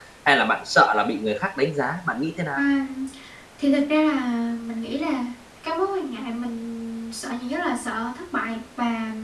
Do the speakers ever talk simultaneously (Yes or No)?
No